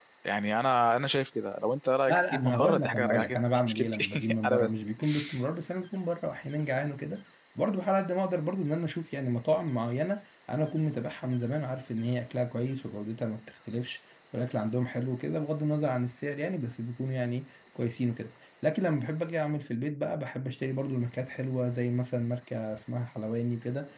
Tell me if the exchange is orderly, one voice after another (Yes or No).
No